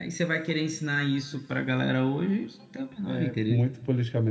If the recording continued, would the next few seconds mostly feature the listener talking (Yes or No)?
Yes